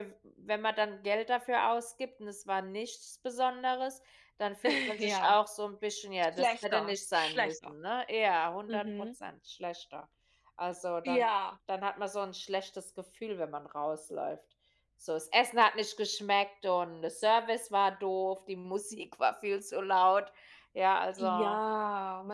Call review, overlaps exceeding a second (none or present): present